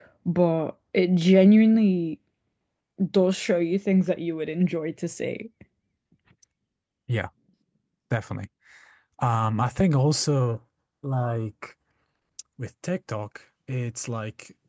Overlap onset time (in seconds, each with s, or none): none